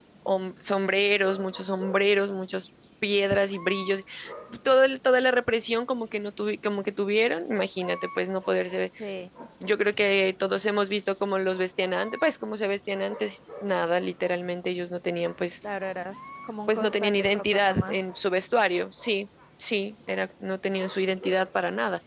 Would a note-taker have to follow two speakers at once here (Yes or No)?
Yes